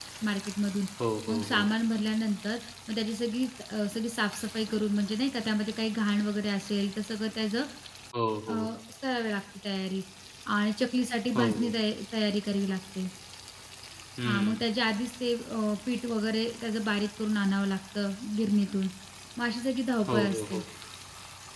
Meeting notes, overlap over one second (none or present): none